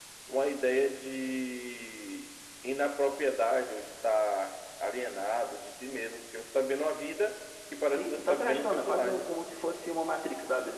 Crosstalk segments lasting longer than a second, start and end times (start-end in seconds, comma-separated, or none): 7.9-9.3